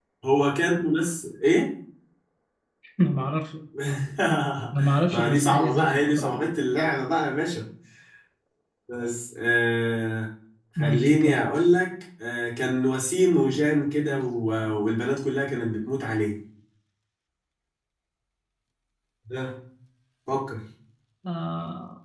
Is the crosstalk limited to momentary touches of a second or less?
No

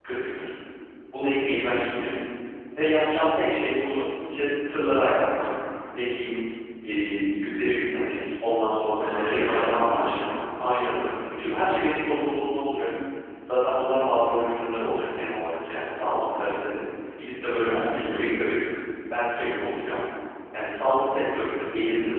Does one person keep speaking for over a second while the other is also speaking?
Yes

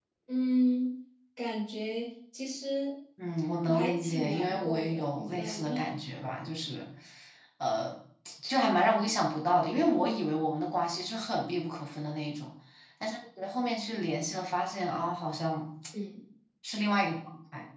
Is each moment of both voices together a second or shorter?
No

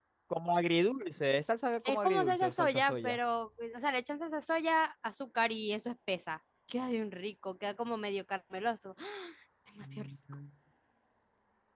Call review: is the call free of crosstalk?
No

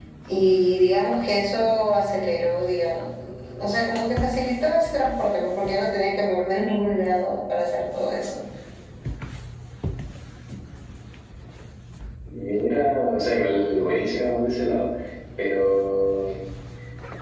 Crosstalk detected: No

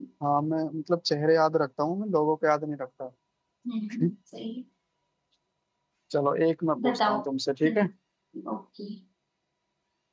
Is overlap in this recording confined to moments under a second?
Yes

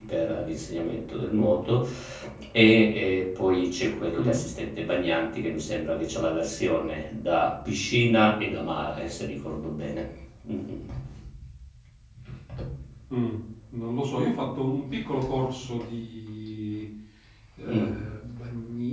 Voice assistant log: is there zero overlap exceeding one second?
Yes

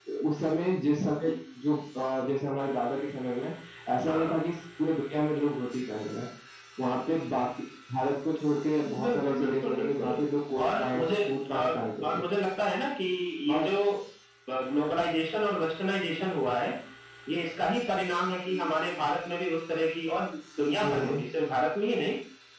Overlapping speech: Yes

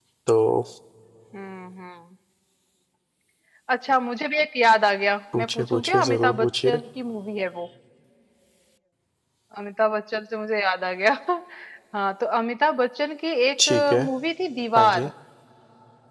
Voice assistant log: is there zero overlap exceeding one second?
No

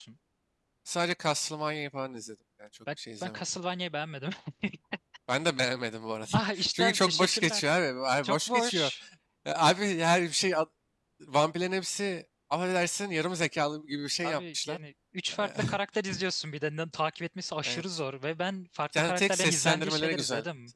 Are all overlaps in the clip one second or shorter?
No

